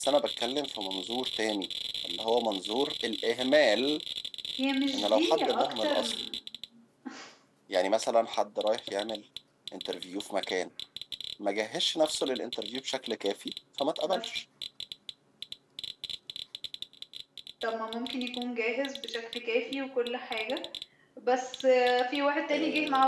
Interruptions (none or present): present